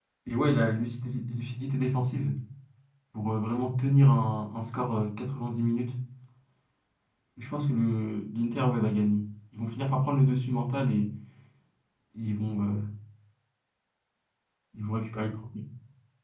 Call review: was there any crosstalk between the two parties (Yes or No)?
No